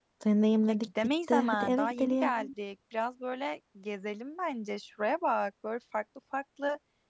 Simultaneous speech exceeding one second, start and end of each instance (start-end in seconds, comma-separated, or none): 0.7-2.4